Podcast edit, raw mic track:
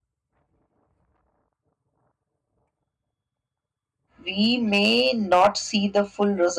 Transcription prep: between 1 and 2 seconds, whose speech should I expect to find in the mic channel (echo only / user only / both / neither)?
neither